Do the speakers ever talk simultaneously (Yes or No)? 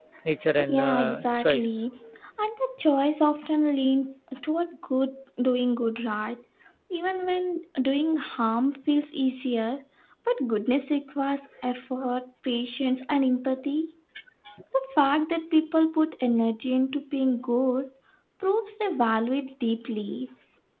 Yes